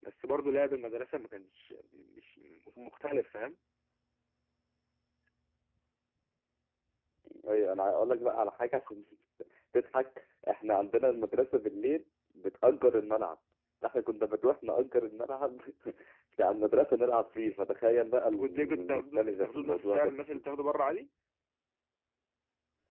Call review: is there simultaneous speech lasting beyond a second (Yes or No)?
Yes